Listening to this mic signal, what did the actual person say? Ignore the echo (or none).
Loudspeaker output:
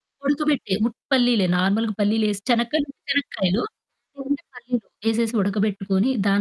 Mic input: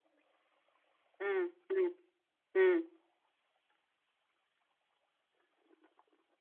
హ్మ్, హ్మ్, హ్మ్.